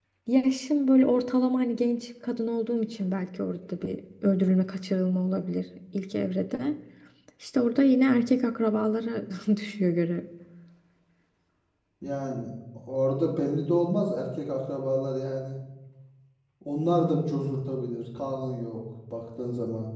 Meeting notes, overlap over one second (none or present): none